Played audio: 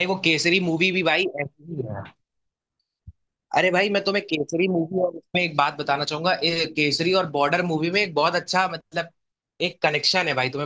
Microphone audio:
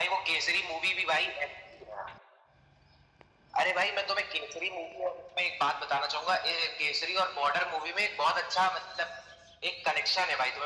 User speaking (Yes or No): No